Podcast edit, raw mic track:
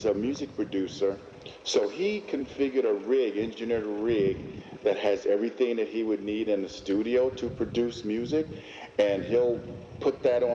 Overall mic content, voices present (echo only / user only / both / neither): echo only